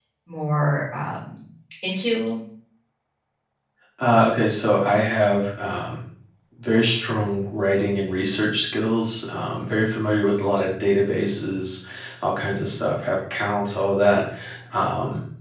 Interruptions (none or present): none